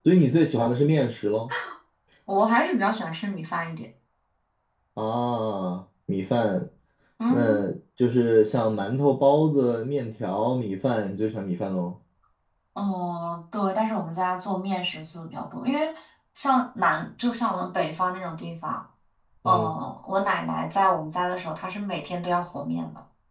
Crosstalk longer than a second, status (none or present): none